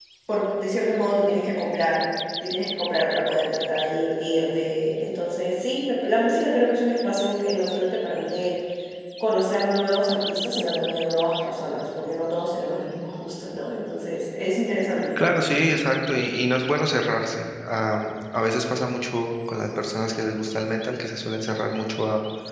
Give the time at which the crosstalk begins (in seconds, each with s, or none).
none